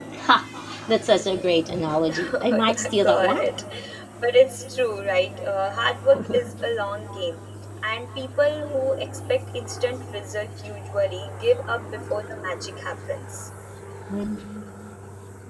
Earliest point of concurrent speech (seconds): 2.1 s

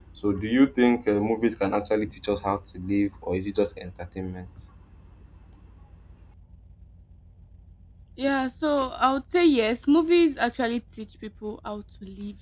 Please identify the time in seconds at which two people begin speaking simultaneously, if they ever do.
none

